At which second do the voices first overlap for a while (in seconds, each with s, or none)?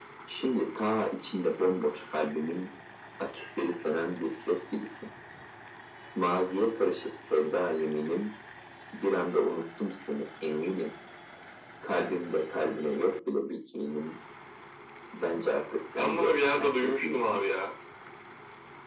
16.0 s